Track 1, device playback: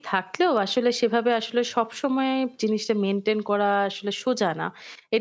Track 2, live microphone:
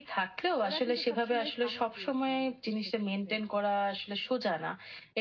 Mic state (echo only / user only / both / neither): both